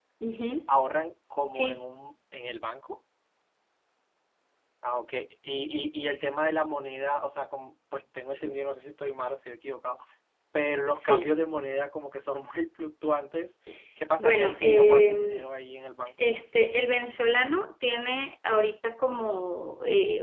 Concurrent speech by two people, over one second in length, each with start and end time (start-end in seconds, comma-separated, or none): 14.2-15.5